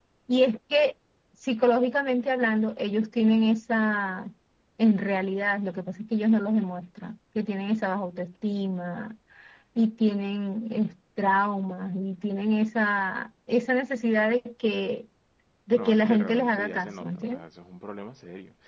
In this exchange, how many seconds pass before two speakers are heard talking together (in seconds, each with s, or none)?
15.7 s